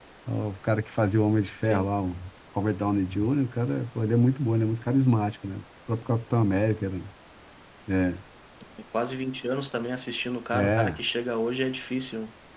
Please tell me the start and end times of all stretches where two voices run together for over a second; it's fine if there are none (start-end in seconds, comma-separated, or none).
none